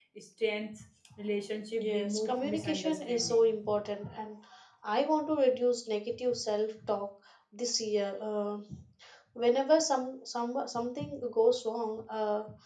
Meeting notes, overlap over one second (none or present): present